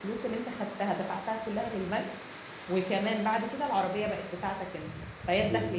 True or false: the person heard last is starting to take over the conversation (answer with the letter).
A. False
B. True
A